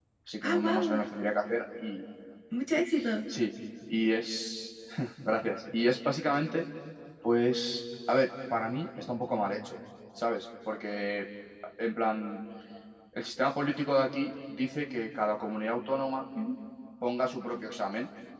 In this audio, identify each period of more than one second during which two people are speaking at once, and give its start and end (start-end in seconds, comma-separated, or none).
none